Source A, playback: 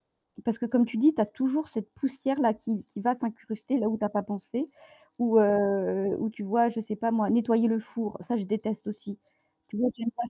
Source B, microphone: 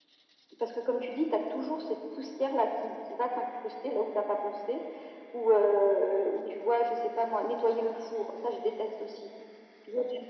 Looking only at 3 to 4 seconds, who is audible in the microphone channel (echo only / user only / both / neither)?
echo only